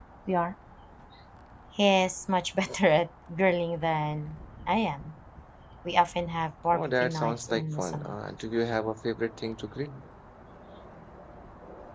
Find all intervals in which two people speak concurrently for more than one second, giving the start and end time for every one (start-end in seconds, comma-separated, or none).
6.7-8.2